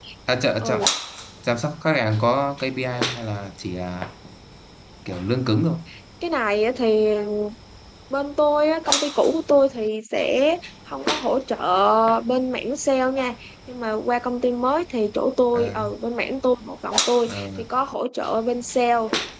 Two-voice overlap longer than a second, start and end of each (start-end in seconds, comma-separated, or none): none